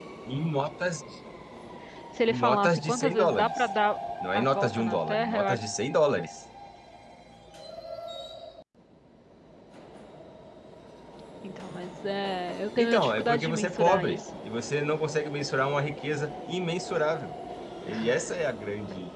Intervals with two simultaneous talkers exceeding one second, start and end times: 2.3-3.6, 4.3-5.6, 12.8-14.2

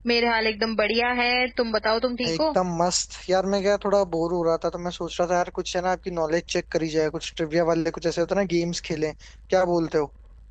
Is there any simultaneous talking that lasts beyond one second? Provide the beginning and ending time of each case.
none

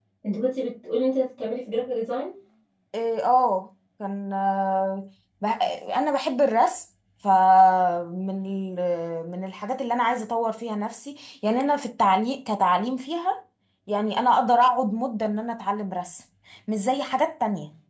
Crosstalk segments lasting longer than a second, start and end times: none

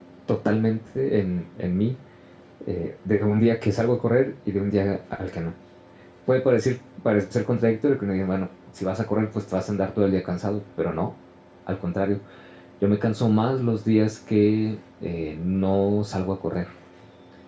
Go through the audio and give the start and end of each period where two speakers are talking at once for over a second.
none

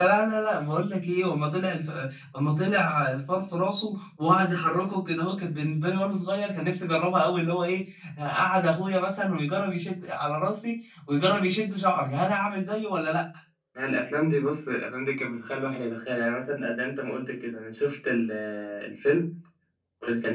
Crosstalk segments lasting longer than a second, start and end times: none

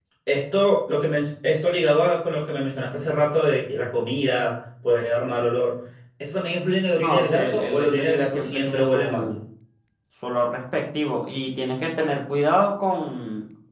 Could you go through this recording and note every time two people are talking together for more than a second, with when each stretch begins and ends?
7.0-9.3

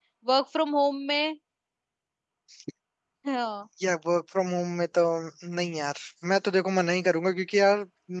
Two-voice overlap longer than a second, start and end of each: none

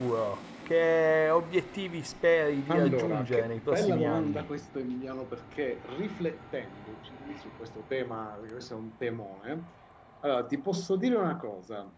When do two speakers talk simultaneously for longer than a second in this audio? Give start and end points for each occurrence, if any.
2.7-4.5

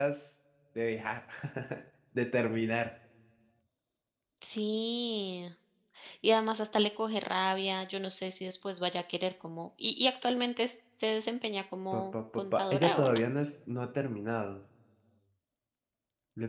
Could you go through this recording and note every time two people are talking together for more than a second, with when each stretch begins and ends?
11.9-13.2

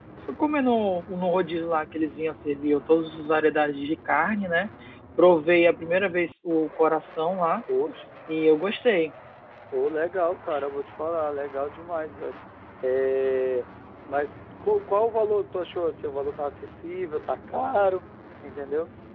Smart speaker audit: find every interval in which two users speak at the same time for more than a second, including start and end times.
none

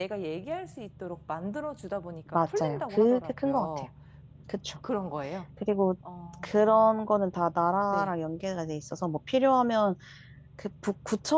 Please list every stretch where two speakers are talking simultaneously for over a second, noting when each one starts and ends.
2.3-3.9

